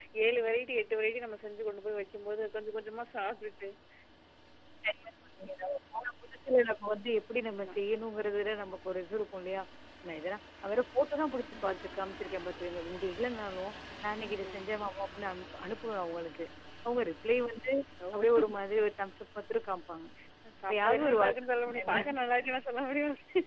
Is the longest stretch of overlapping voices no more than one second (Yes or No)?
No